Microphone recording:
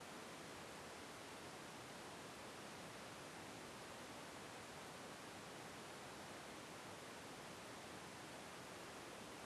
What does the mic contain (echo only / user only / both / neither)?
neither